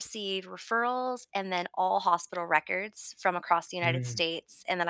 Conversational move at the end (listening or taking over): listening